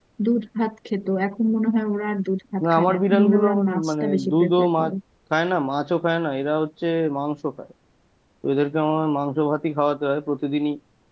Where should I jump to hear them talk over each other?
2.6 s

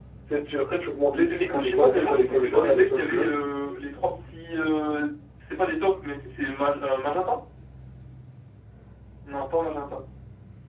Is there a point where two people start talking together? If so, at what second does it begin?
1.1 s

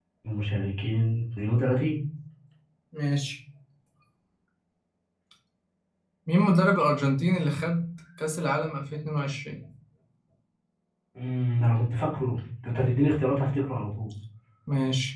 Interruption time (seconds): none

